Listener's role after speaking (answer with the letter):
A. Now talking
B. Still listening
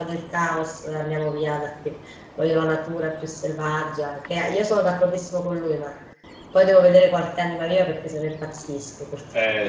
A